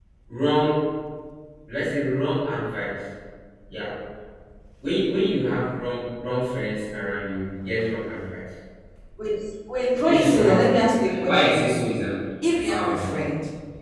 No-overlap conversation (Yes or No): No